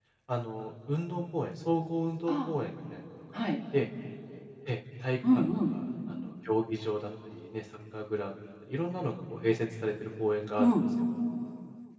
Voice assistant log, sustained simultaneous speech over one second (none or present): none